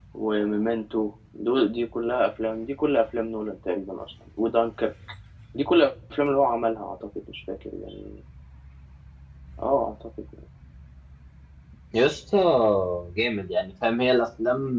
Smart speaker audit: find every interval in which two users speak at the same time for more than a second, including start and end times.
none

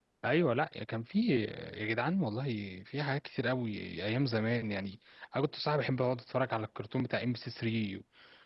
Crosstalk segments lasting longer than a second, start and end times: none

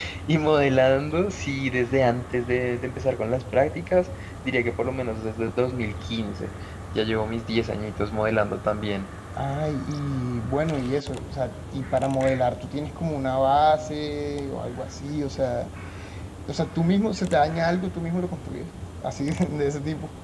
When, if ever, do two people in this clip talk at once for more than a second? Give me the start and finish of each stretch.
none

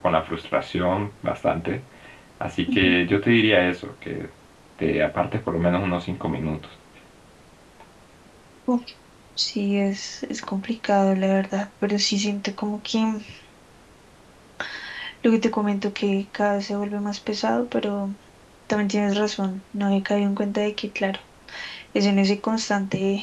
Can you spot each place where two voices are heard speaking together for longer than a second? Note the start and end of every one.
none

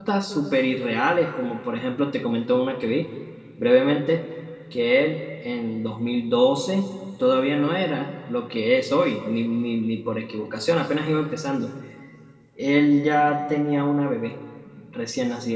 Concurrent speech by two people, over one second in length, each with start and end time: none

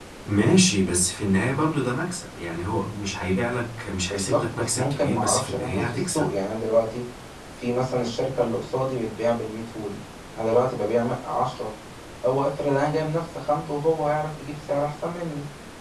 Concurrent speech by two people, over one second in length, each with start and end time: 4.1-6.3

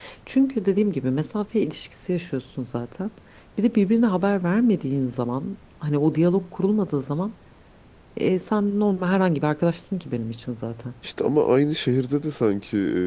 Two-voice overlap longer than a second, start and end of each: none

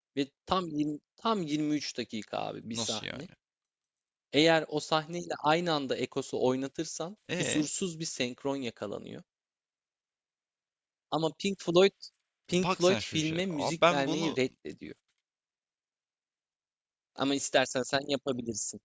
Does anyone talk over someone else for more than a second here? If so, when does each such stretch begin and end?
12.6-14.4

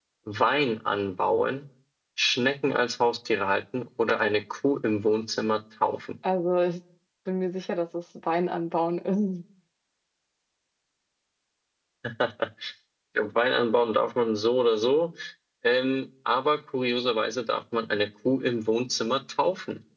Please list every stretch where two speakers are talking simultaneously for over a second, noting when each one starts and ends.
none

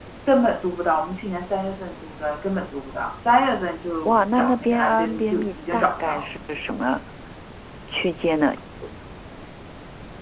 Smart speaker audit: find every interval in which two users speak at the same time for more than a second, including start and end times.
4.0-6.3

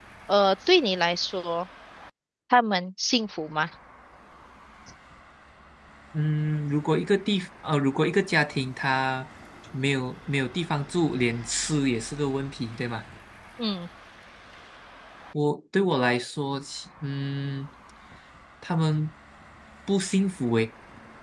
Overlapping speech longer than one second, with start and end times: none

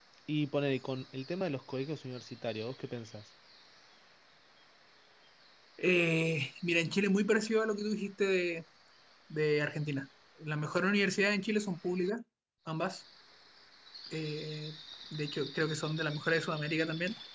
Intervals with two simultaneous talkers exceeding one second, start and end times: none

